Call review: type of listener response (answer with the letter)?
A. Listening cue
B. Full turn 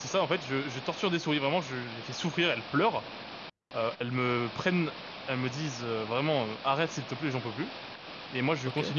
A